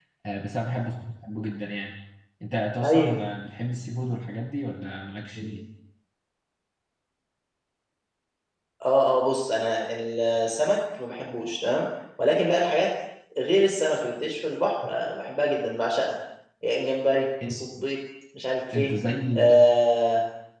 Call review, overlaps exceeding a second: none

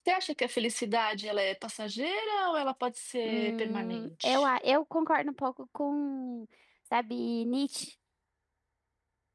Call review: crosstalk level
present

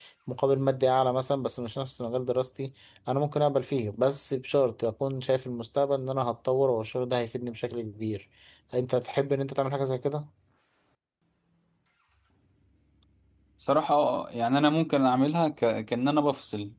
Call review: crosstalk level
none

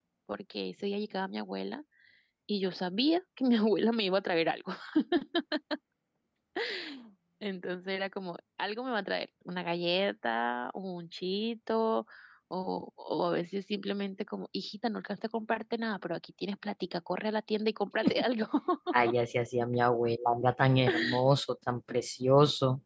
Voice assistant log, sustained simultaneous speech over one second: none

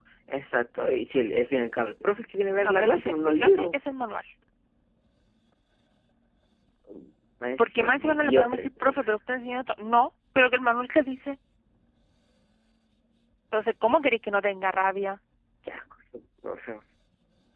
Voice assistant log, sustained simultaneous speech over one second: present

